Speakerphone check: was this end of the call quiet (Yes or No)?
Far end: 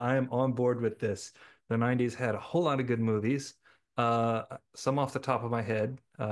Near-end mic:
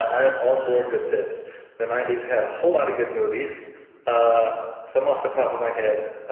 Yes